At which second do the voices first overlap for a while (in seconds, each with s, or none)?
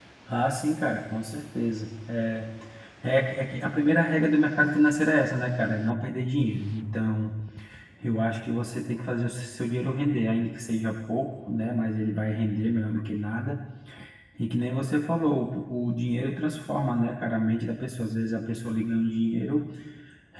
none